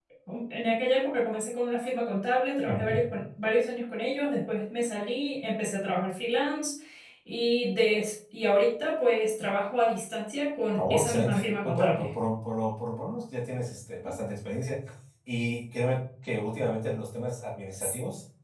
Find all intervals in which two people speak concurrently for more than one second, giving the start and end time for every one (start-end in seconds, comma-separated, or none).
10.8-12.1